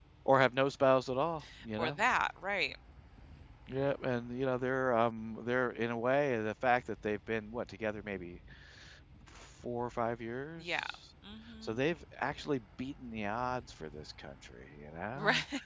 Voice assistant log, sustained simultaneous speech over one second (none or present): none